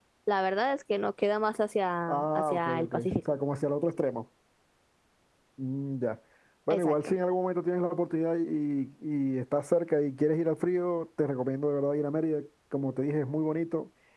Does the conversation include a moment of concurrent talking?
Yes, from 2.1 s

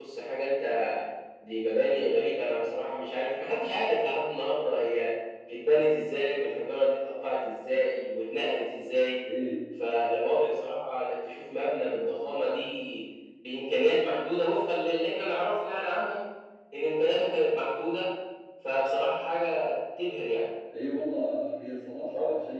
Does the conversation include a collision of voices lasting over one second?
No

